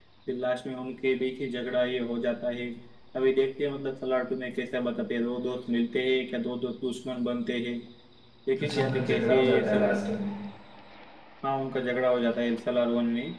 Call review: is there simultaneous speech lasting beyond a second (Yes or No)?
Yes